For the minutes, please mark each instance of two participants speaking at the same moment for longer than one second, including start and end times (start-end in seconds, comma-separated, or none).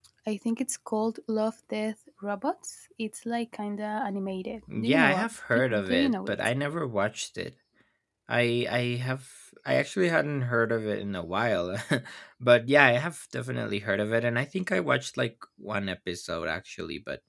4.7-6.3